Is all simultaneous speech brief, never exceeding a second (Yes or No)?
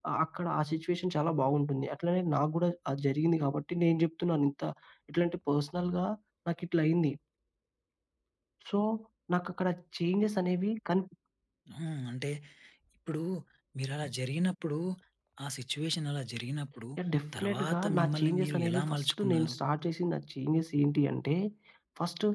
No